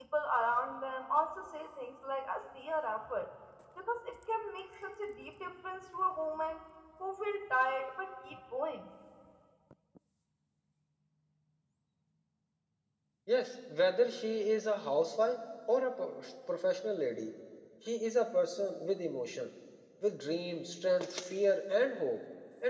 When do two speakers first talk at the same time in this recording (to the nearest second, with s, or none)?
none